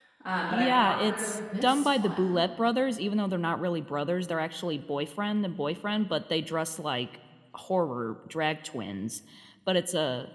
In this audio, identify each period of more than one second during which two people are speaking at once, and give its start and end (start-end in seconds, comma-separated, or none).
0.5-2.5